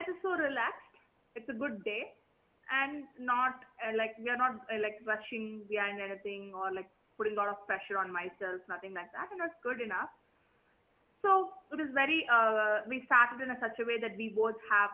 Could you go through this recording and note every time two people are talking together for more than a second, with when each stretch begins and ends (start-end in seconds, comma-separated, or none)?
none